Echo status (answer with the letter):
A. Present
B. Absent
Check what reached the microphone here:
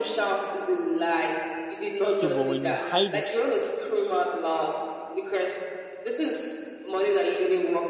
A